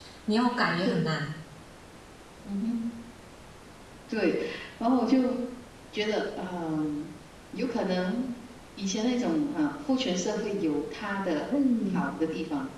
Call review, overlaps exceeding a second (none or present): none